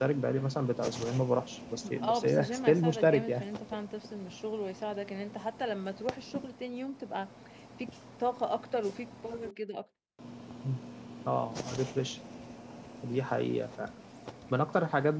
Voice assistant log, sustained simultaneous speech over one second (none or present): present